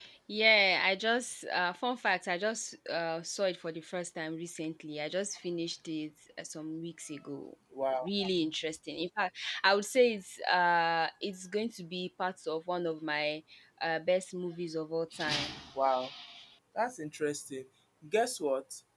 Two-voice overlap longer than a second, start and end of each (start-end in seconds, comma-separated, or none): none